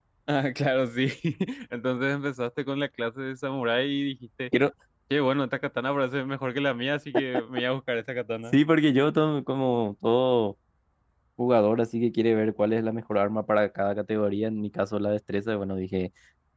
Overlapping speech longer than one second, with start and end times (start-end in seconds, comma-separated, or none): none